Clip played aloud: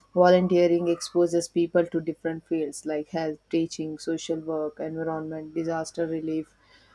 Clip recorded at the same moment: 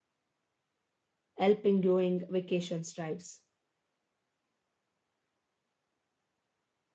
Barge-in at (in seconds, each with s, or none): 1.4 s